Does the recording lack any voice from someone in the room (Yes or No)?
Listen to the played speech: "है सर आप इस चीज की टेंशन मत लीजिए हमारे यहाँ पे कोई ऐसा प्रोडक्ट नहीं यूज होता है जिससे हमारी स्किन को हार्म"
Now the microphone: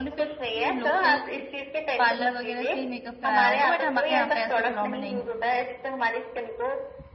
No